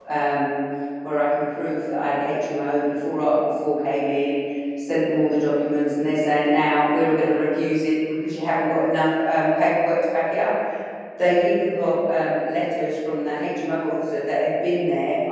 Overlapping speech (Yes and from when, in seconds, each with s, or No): No